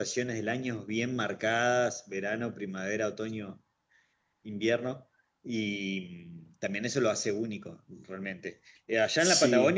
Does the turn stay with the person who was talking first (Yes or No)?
Yes